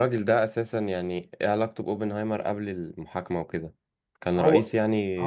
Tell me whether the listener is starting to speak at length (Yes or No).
Yes